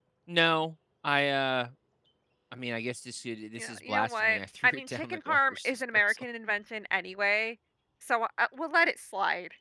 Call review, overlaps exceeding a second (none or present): present